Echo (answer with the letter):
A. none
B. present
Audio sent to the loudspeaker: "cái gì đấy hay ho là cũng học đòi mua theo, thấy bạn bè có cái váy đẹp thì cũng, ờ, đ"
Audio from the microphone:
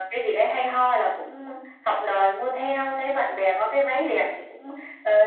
B